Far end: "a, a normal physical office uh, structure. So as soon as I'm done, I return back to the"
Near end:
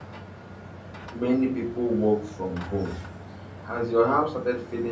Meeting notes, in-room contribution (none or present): present